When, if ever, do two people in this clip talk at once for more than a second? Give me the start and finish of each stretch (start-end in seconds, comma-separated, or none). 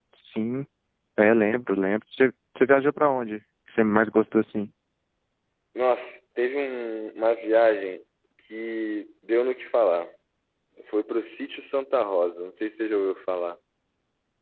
none